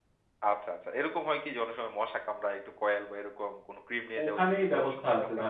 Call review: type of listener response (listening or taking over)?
taking over